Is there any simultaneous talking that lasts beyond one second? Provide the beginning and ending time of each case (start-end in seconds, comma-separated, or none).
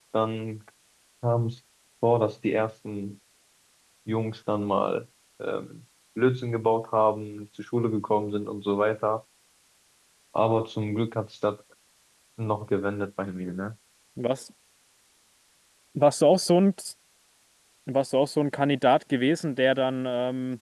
none